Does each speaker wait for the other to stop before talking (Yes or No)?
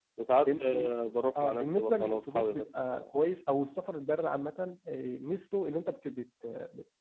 No